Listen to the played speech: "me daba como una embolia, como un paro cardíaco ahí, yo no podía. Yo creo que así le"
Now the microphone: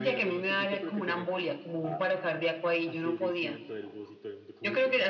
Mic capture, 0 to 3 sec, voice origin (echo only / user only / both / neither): both